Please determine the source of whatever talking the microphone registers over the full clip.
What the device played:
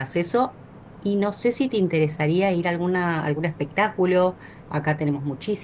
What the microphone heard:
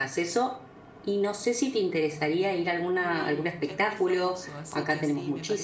both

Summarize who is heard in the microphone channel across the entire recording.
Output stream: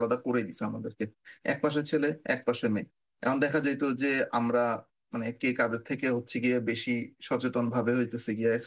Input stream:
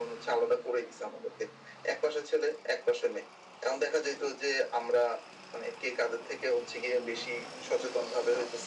echo only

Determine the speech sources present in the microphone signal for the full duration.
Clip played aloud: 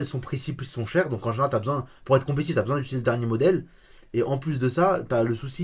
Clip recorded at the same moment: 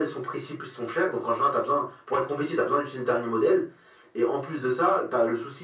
echo only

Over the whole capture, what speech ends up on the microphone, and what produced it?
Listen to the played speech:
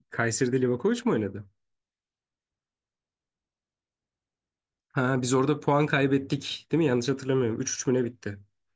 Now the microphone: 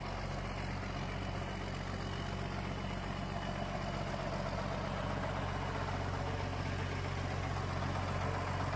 neither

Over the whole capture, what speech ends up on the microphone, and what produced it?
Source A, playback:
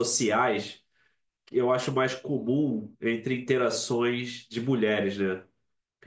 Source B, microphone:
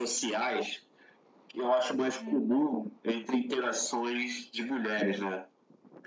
both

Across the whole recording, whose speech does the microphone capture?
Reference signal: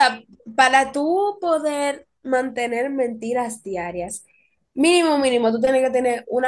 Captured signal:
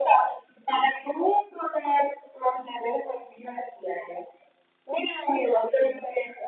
echo only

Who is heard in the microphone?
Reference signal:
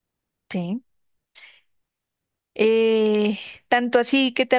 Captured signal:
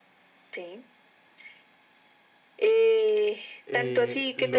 both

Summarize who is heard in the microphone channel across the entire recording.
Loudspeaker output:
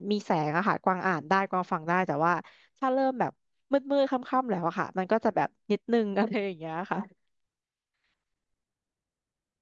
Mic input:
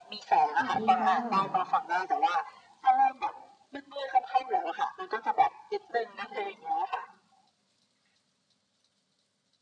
both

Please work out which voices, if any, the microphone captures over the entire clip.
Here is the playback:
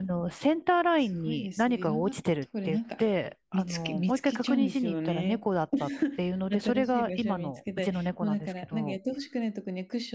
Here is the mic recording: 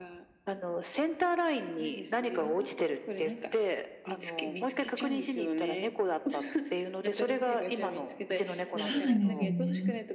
both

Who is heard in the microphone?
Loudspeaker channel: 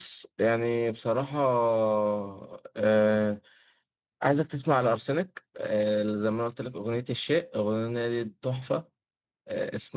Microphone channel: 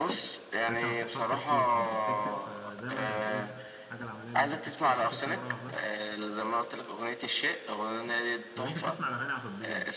both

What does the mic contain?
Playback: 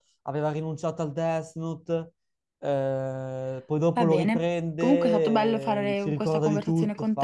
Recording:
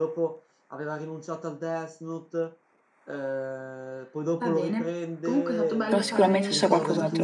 both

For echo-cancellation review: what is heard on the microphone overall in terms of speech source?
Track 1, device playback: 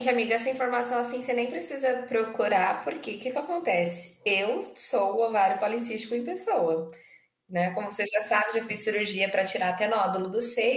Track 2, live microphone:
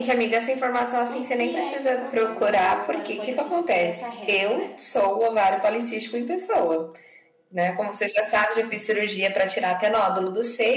both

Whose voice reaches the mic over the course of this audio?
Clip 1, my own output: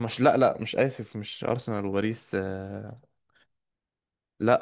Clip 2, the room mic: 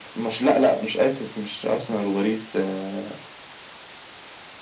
echo only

